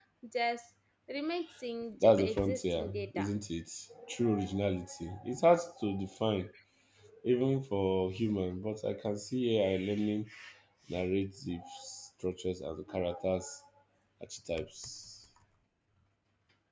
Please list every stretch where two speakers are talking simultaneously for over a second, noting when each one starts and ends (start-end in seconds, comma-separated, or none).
2.0-3.3